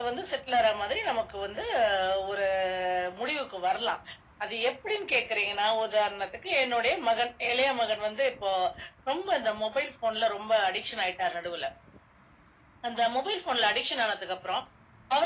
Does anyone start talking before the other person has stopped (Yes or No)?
No